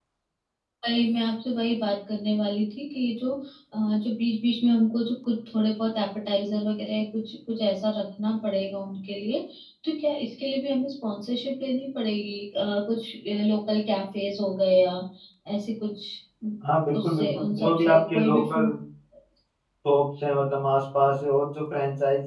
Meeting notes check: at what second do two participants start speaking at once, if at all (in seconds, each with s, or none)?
16.9 s